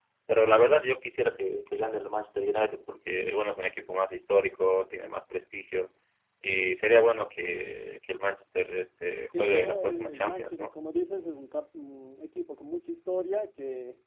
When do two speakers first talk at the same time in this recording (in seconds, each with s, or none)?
9.3 s